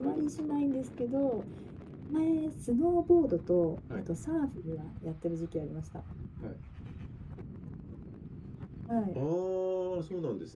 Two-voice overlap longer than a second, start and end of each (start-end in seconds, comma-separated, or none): none